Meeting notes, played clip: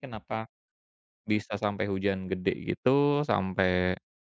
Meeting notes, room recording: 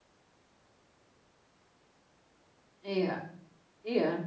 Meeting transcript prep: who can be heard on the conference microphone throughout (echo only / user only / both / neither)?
user only